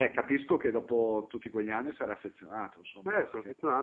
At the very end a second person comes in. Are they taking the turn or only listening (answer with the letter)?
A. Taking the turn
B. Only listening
A